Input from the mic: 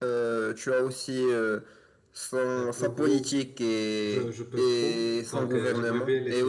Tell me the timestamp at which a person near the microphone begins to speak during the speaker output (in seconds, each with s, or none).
2.5 s